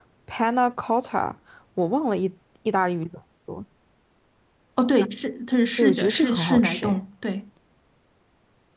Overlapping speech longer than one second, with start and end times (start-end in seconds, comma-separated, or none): 5.8-7.0